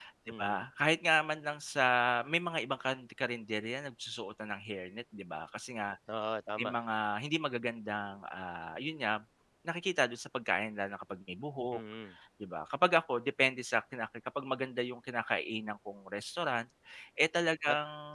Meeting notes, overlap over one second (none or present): none